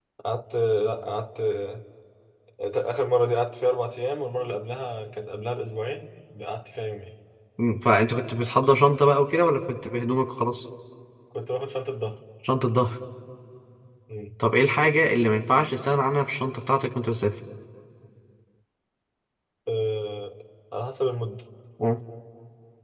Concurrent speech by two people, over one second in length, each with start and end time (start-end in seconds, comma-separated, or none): none